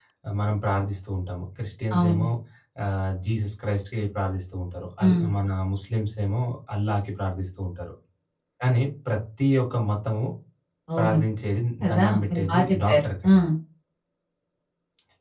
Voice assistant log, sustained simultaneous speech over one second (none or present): present